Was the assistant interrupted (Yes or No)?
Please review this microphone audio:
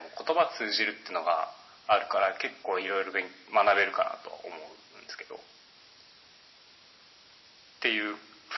No